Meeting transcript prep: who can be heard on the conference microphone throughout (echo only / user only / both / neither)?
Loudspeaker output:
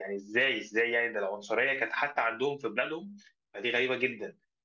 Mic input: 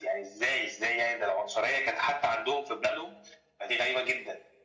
echo only